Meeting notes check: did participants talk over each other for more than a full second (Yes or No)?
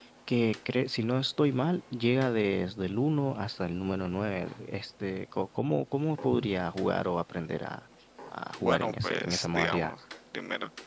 Yes